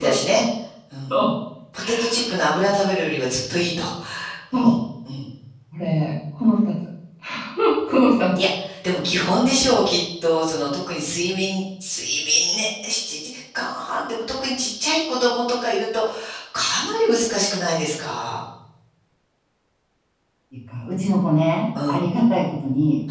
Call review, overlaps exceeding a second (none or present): none